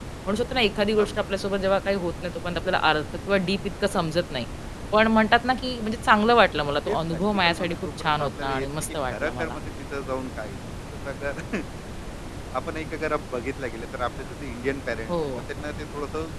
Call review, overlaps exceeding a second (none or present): present